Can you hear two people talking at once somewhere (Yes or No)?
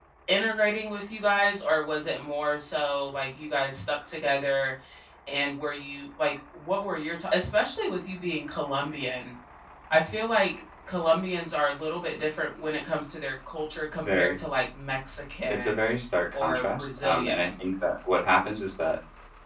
Yes